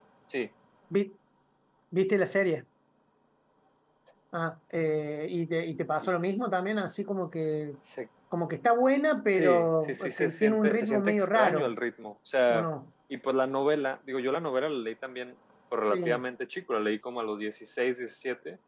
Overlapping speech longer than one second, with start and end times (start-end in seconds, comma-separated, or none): 9.3-11.7